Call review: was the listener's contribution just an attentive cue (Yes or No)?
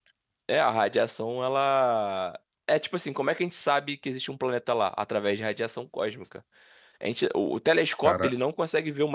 Yes